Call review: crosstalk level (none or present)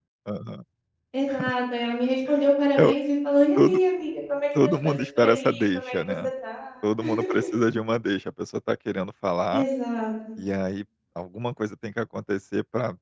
present